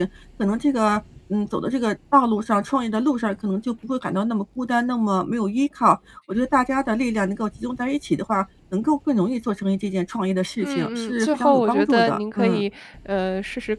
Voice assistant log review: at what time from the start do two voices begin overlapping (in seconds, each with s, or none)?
10.6 s